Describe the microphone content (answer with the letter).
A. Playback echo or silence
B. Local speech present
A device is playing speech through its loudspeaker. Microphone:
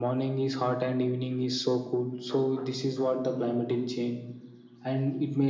A